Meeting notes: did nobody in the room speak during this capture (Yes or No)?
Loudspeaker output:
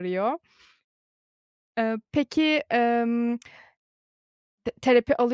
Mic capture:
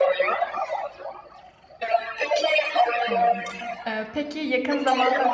No